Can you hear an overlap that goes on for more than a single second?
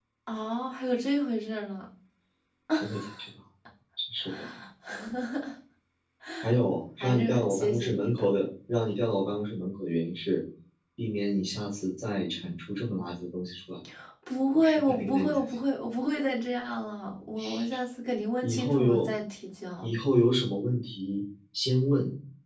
Yes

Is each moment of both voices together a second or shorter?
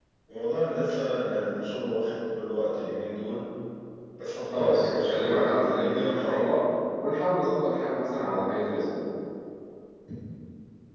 No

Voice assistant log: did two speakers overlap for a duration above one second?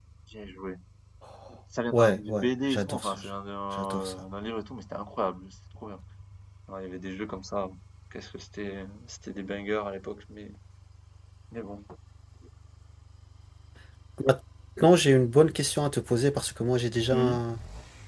Yes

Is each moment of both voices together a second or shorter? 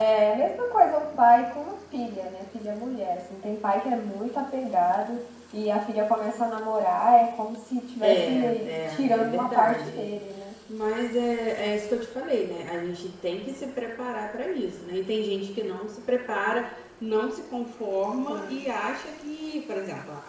No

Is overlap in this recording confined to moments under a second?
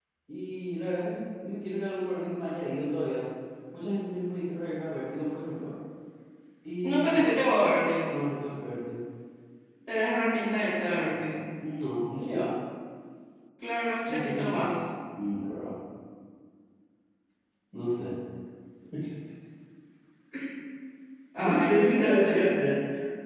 No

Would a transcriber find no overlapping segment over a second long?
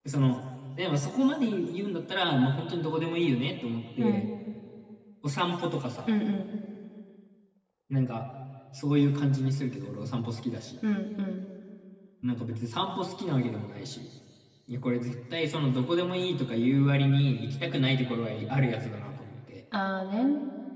Yes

